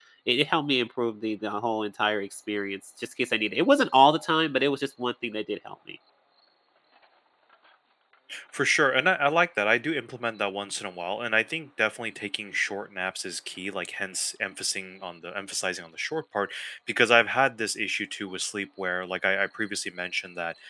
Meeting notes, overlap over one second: none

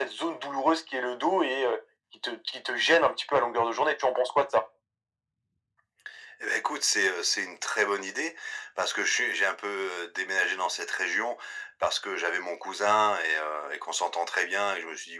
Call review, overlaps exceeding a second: none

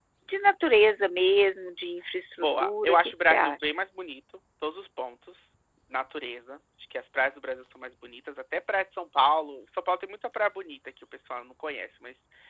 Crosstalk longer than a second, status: present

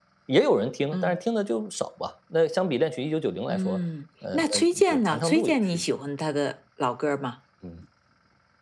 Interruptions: present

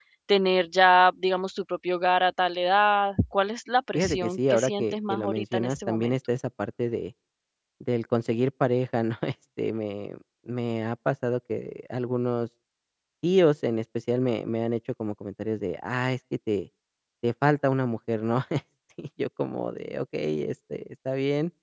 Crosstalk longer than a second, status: present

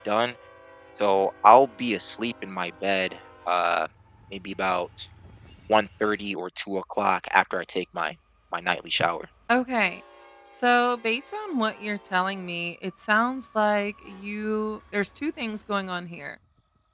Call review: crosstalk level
none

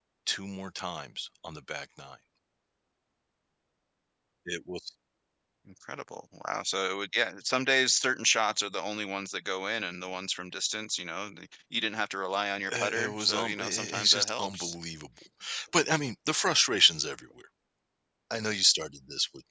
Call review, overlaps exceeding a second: present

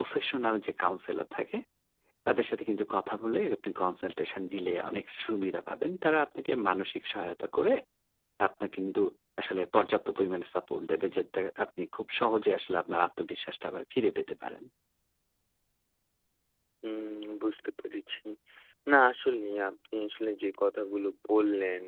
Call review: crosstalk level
none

